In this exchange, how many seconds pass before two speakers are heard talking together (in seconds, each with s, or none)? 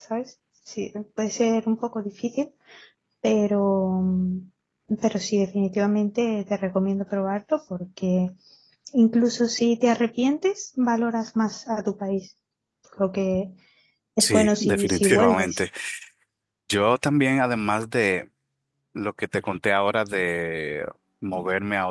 14.2 s